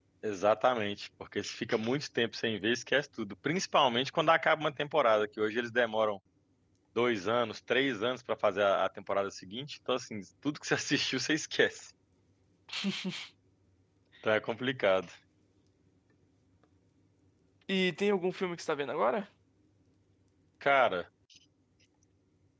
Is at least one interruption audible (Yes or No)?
No